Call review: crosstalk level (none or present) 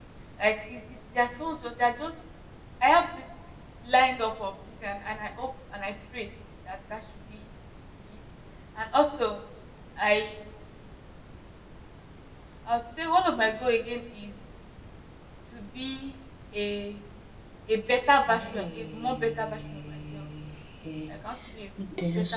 present